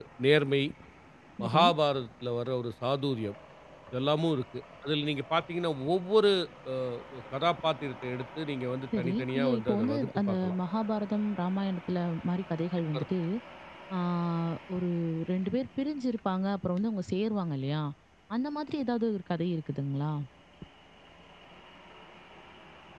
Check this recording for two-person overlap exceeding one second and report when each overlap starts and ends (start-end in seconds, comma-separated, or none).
9.0-10.6